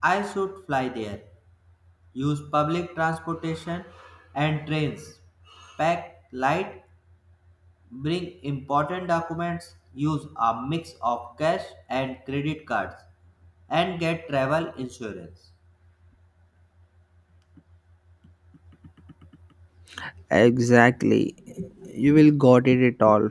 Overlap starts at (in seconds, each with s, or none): none